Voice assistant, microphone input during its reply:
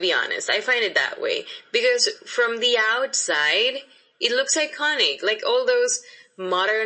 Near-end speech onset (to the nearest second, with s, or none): none